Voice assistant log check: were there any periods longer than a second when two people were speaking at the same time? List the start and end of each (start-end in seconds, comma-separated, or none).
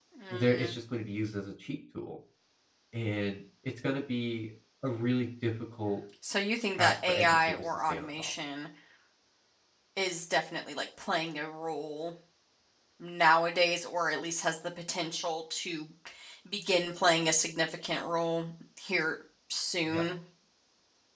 6.7-8.3